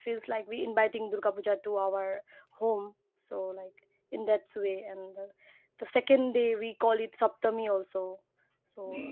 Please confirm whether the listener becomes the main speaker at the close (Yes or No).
Yes